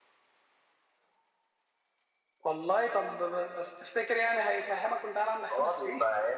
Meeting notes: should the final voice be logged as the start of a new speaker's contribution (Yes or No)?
Yes